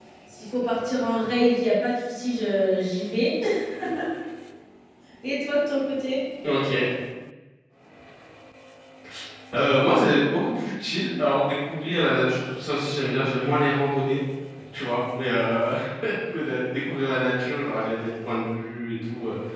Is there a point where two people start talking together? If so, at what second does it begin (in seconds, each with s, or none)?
none